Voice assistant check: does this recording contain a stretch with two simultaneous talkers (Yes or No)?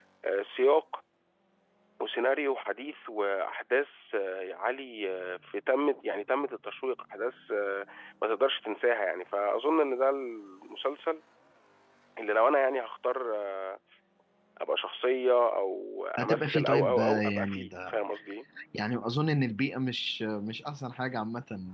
Yes